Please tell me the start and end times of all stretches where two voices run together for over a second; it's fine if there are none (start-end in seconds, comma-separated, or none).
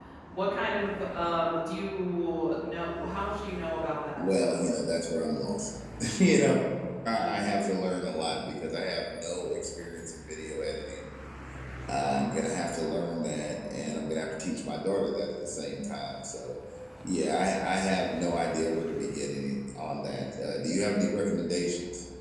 none